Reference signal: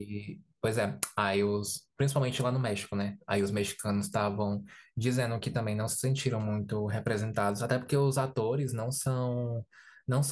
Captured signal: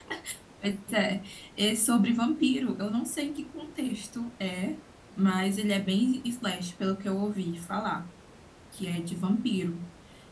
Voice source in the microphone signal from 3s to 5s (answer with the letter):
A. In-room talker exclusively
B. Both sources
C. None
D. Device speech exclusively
A